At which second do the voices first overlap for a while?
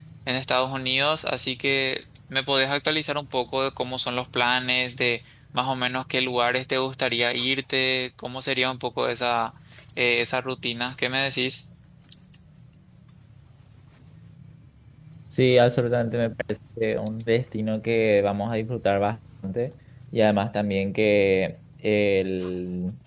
none

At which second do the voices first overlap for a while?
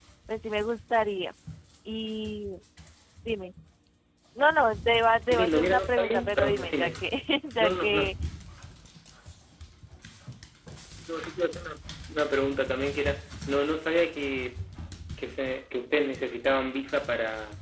5.3 s

